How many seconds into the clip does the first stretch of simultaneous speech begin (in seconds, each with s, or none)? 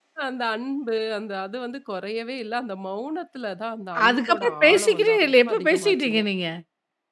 3.9 s